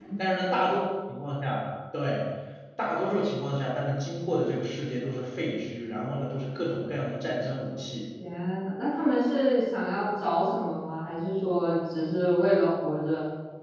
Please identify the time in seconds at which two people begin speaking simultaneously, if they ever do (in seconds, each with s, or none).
none